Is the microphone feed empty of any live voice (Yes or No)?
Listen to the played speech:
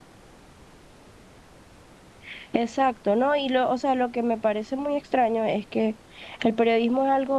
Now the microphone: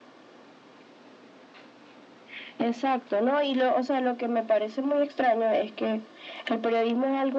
Yes